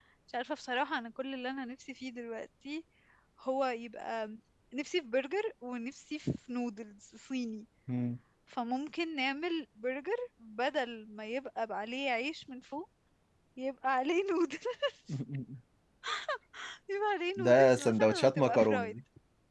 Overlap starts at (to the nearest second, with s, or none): 17 s